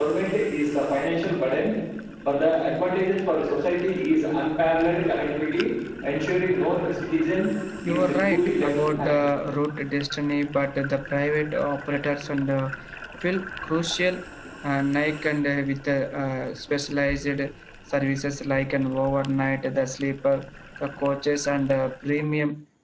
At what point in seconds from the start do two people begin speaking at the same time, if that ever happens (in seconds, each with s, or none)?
7.8 s